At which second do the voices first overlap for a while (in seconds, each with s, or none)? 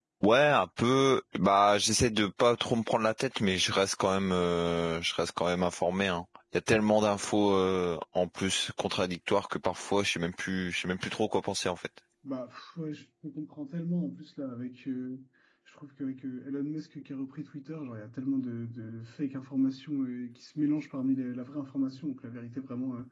none